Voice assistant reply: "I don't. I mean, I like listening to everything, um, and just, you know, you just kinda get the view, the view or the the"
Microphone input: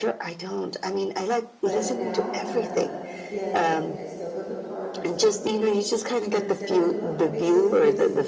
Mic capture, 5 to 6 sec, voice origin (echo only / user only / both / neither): both